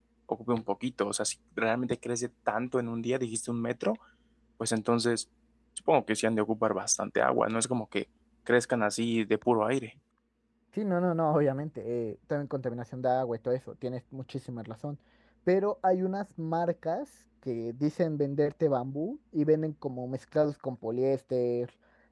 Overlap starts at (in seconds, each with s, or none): none